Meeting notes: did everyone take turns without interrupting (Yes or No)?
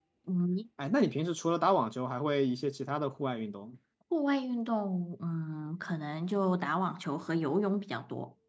Yes